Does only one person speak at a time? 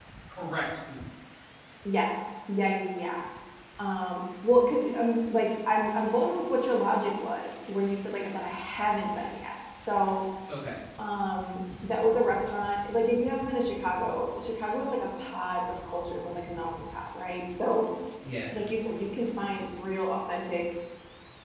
Yes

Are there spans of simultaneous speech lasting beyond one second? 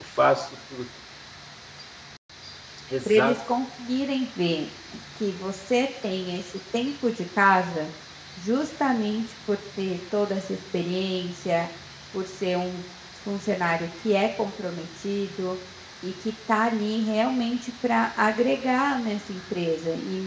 No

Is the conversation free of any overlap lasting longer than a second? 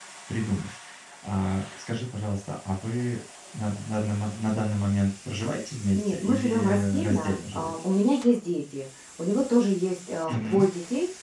No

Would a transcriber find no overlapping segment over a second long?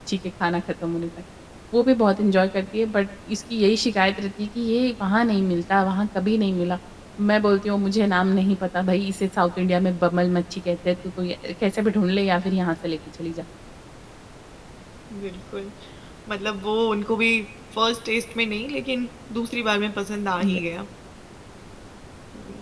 Yes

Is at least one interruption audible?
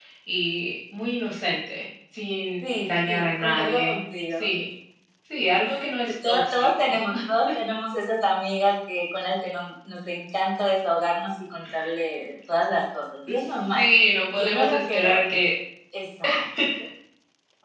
Yes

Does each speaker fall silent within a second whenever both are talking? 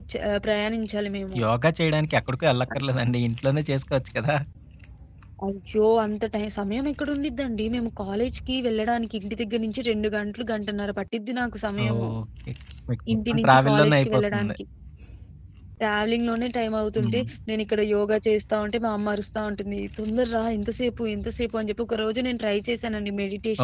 No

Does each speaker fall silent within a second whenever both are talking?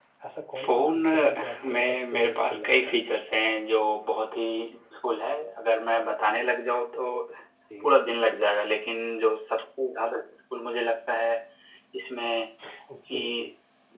No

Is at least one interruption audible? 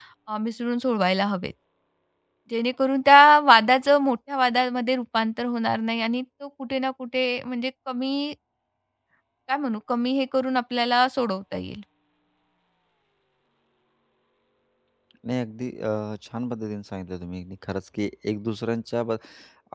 No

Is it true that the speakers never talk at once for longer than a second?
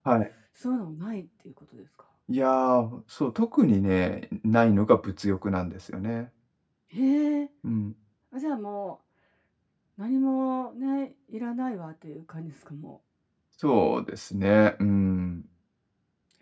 Yes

